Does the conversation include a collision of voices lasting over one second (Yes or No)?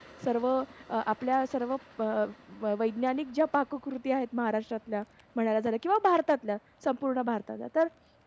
No